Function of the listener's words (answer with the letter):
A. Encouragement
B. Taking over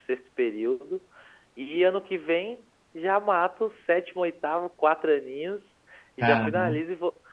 A